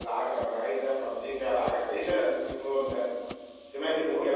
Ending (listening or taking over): listening